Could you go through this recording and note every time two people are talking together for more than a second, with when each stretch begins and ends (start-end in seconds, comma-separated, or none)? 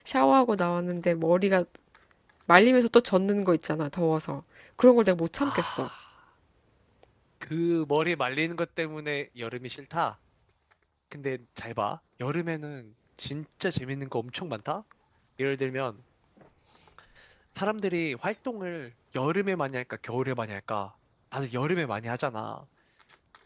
none